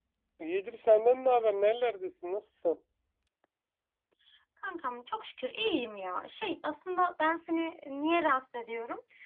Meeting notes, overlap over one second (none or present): none